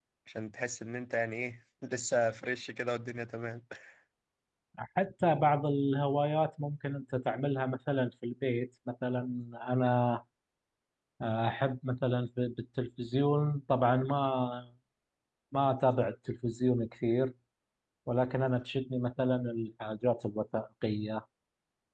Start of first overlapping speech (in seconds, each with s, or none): none